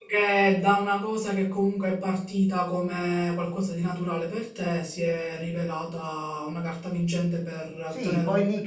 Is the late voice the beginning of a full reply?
Yes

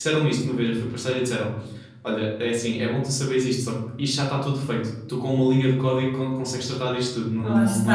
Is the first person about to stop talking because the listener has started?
No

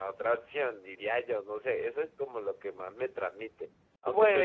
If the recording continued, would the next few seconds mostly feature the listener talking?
No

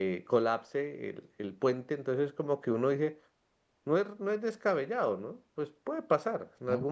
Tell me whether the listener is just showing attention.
Yes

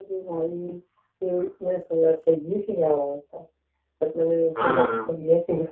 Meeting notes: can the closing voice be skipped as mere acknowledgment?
Yes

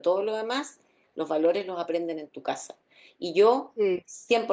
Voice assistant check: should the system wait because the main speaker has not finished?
Yes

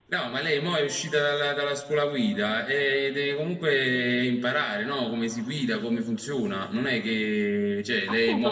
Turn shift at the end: Yes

